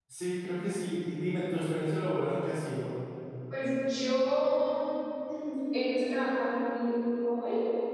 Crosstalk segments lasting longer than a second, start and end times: none

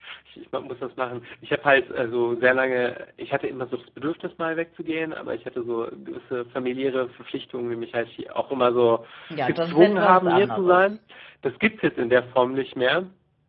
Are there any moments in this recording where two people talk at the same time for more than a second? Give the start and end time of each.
9.5-10.9

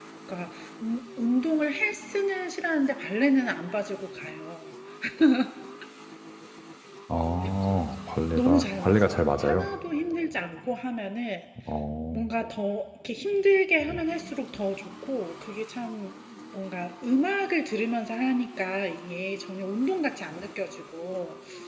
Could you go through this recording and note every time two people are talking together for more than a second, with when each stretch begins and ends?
8.4-9.7

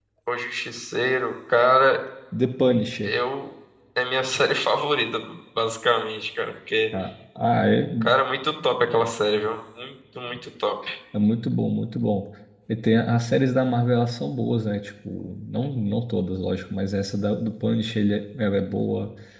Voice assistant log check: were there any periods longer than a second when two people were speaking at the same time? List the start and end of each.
none

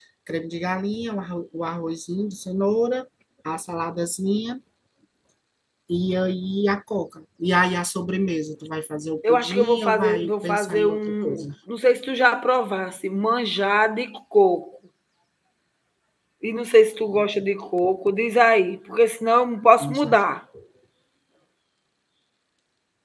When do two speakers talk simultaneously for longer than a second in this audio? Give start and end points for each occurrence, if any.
9.3-11.4

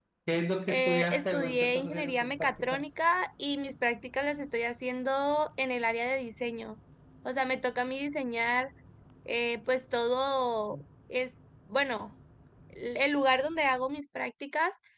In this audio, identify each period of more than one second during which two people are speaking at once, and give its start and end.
0.7-2.9

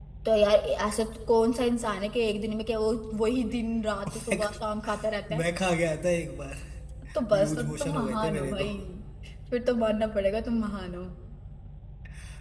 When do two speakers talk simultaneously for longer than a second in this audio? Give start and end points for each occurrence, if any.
7.3-8.7

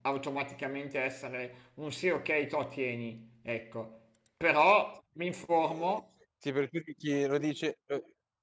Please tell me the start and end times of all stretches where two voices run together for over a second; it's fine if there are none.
none

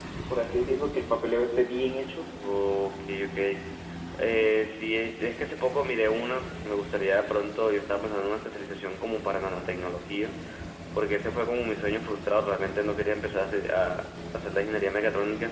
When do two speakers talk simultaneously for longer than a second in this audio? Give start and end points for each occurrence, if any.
none

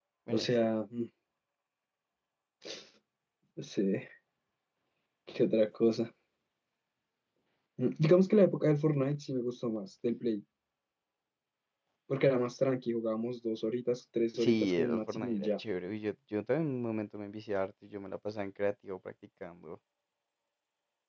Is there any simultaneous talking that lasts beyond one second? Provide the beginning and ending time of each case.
14.4-15.6

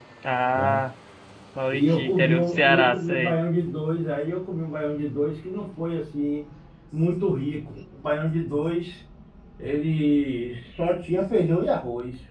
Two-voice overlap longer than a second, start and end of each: 1.7-3.4

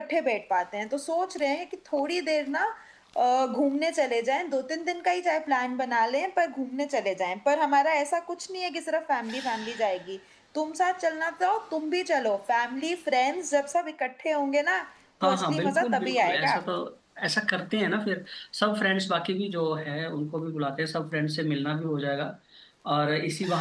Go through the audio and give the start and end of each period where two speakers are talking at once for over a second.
15.2-16.5

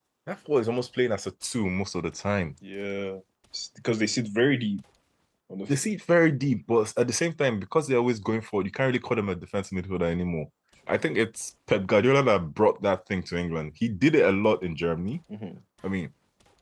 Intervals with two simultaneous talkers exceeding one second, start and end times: none

